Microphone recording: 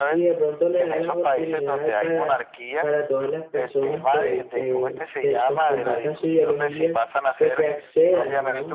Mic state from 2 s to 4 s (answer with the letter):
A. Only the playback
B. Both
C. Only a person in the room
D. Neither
B